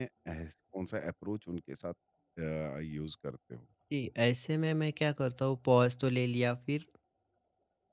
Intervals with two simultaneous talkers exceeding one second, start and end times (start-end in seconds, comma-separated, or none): none